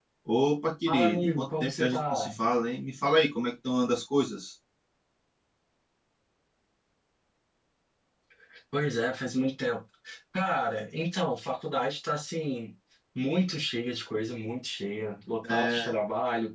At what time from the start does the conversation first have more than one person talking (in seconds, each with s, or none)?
0.9 s